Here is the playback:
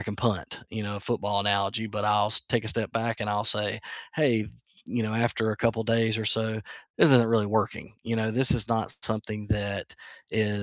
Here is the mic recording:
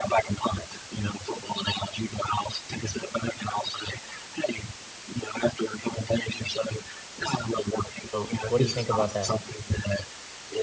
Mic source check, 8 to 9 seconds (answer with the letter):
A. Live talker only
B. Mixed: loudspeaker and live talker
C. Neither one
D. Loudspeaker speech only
B